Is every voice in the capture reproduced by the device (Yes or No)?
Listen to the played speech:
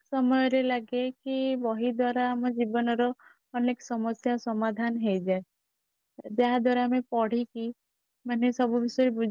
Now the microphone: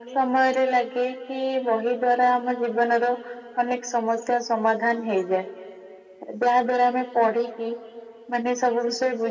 Yes